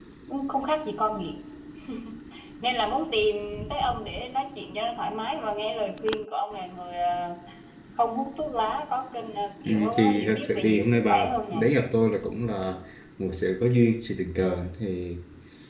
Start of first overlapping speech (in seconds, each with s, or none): 9.6 s